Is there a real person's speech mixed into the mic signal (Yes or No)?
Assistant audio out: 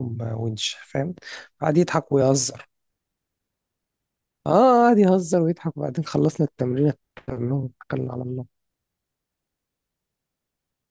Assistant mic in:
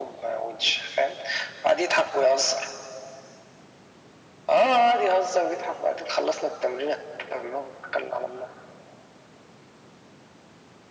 No